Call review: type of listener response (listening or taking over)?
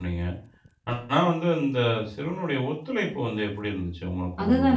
taking over